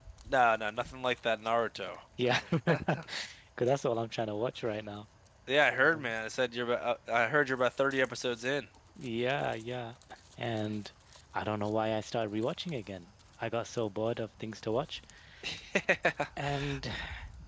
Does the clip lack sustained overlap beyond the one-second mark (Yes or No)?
Yes